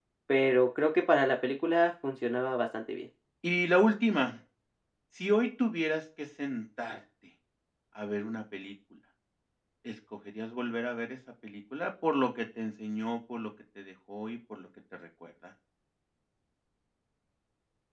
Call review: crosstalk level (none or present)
none